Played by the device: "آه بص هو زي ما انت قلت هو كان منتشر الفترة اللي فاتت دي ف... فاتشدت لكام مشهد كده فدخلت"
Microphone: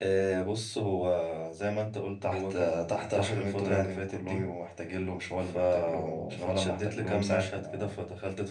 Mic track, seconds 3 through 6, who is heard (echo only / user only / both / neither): both